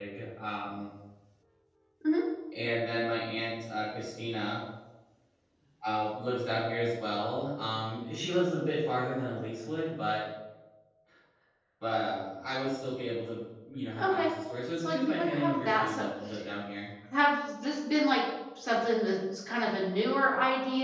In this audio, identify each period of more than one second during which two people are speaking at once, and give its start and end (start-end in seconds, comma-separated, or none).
14.8-16.1